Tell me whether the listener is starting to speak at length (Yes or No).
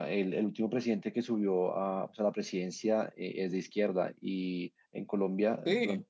No